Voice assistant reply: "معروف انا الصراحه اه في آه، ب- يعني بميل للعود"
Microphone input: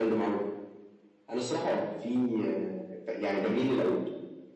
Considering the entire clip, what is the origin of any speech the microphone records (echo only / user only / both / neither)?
echo only